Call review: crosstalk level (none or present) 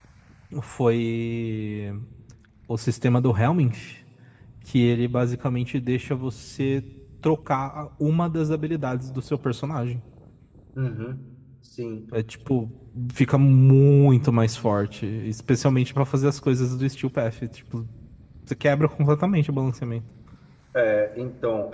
none